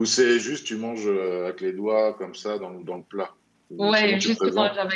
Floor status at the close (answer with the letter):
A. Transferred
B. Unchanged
A